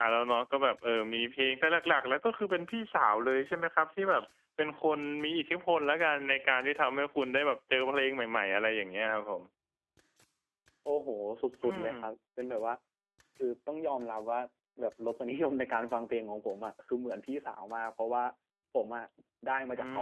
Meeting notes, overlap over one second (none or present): none